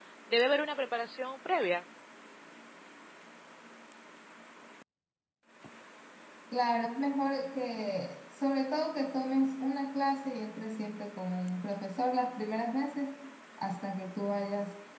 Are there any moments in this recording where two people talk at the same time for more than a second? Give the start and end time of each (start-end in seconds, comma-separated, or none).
none